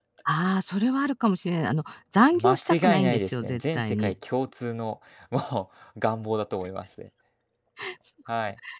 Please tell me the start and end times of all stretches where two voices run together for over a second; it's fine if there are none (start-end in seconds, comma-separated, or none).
2.3-4.1